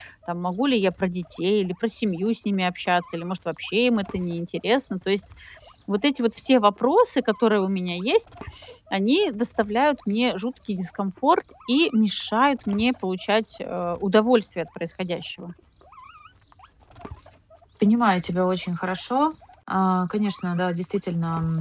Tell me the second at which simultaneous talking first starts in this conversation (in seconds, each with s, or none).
none